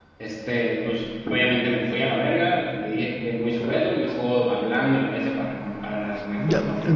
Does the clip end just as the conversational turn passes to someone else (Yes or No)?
Yes